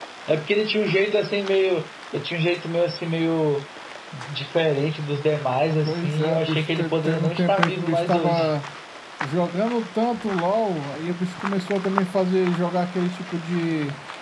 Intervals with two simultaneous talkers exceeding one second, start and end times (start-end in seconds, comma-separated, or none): 5.8-8.5